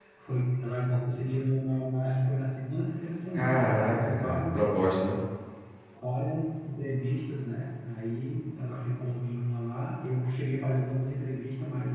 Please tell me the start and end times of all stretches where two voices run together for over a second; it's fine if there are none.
3.3-4.8

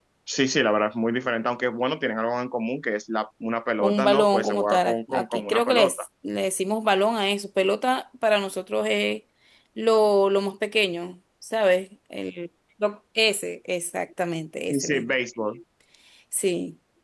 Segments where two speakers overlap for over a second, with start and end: 3.8-6.0

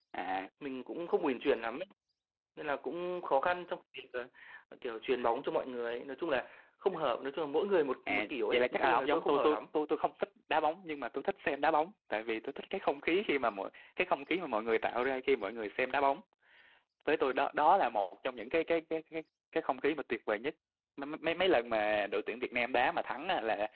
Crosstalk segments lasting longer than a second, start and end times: 8.1-9.6

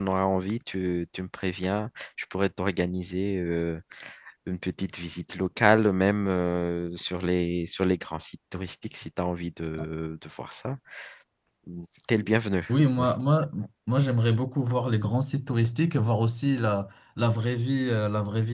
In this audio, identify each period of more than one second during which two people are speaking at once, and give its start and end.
none

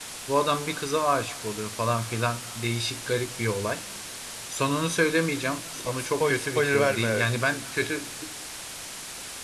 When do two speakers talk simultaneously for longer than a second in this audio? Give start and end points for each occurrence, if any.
5.8-7.2

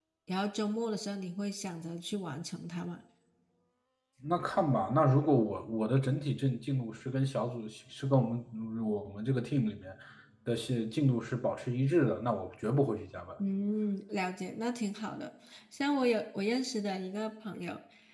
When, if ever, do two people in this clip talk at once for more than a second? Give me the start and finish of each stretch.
none

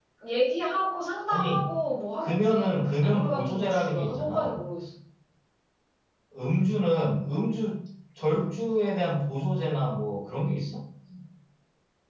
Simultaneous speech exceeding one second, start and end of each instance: 2.2-4.6

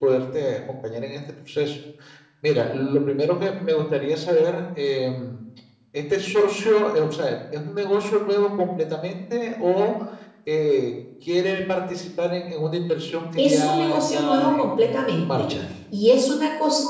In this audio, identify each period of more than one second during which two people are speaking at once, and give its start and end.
13.4-15.5

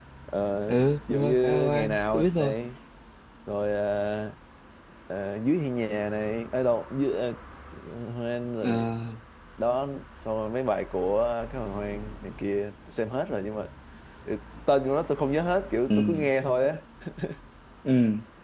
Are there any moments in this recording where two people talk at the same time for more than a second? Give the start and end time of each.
0.7-2.5

